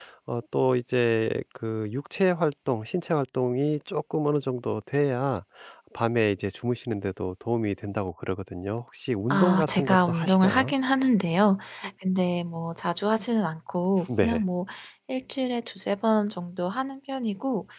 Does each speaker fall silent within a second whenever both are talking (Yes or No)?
No